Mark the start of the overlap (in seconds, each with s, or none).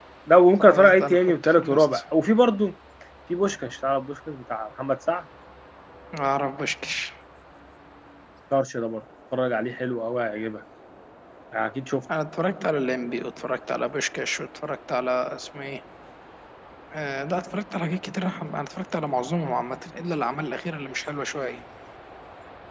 0.6 s